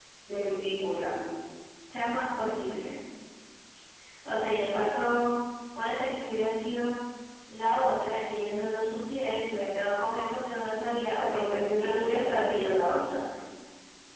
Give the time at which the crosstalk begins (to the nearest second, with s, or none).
11 s